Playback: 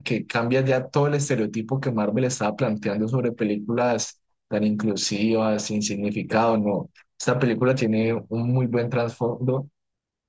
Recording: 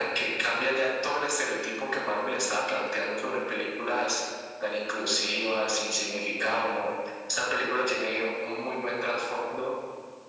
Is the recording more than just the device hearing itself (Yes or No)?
No